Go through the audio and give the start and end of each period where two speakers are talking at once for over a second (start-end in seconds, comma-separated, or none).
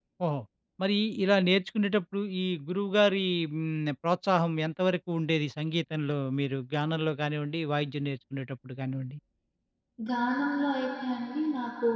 none